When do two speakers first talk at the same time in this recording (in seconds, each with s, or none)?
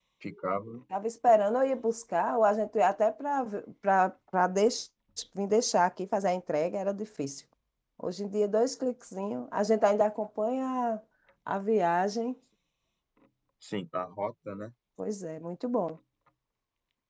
none